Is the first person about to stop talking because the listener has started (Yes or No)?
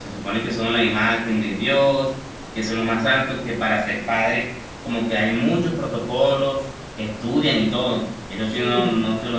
No